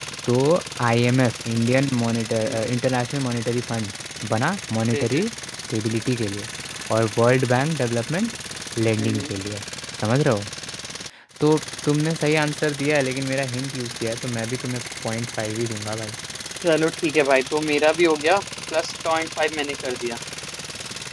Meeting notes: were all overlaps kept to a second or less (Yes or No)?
Yes